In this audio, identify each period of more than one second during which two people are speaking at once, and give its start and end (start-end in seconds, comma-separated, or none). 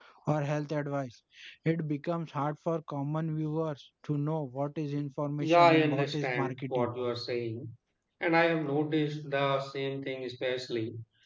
5.4-6.9